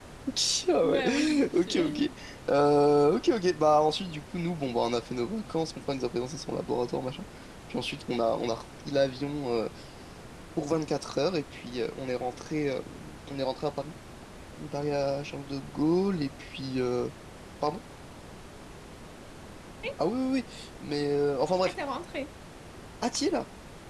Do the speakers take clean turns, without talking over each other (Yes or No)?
No